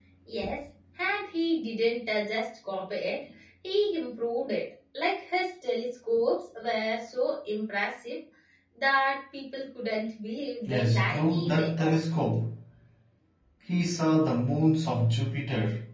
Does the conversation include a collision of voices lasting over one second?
Yes, from 10.7 s

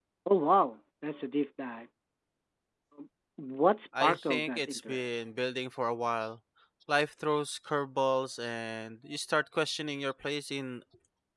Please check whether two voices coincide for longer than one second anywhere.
Yes, from 4.0 s

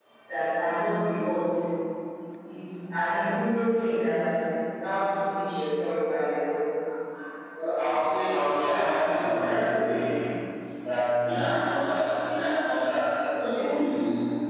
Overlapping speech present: Yes, from 8.5 s

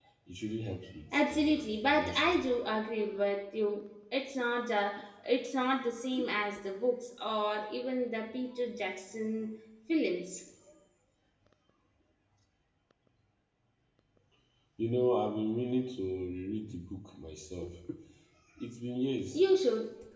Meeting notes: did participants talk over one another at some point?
Yes, from 1.1 s

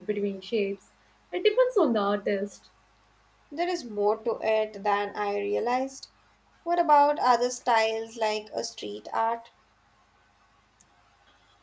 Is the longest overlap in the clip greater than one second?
No

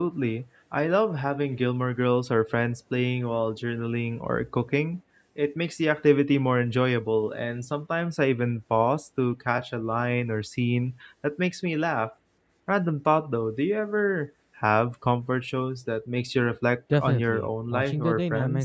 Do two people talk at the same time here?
Yes, from 16.9 s

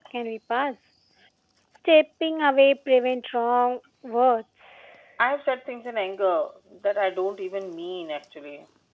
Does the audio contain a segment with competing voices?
No

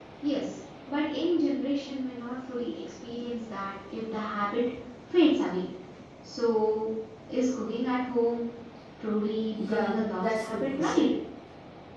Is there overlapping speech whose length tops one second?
Yes, from 9.6 s

